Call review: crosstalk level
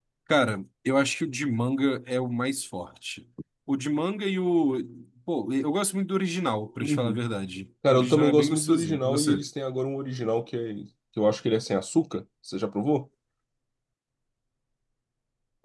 present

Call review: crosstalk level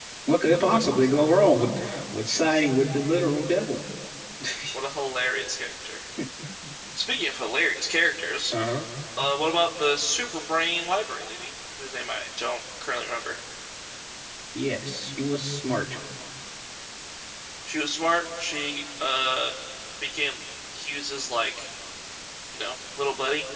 none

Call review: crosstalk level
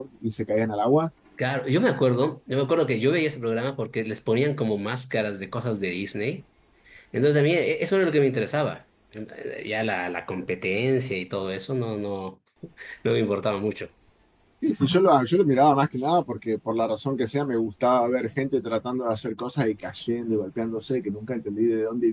none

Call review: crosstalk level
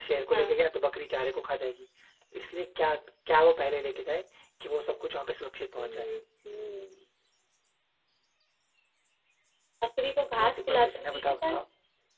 present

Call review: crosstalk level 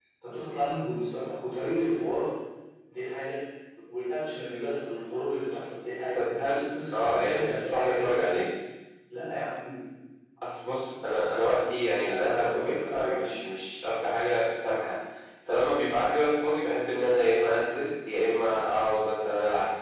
present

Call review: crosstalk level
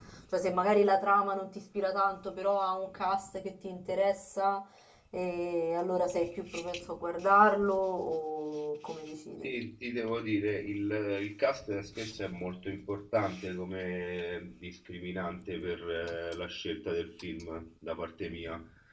none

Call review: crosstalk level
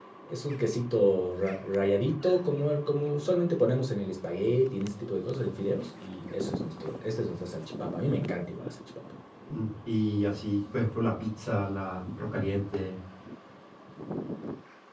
none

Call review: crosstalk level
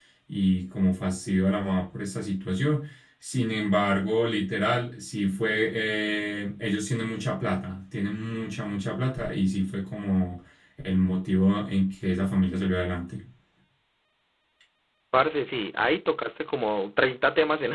none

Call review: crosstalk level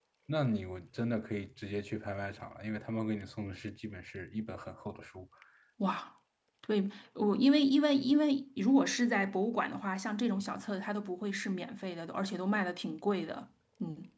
none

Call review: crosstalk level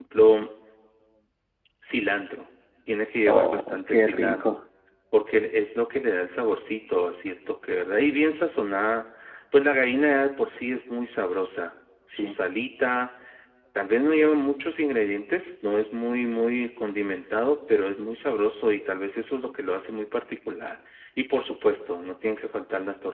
present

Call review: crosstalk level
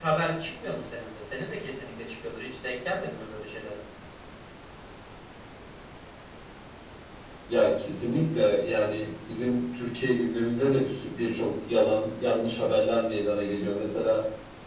none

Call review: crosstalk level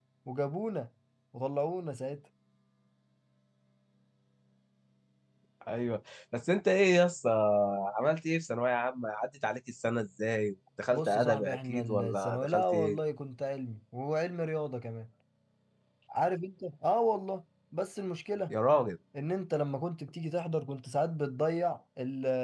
present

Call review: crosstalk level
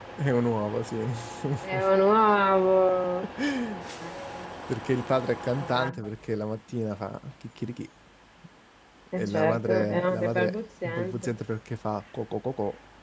present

